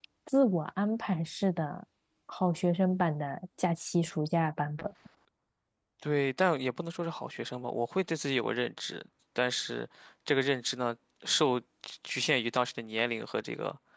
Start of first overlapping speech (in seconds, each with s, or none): none